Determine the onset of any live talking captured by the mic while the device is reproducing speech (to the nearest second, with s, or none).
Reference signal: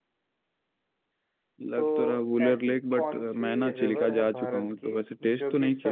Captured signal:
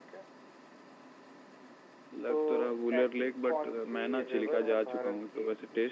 none